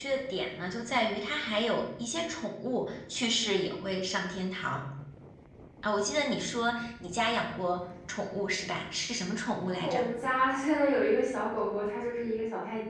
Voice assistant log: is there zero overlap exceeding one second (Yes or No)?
Yes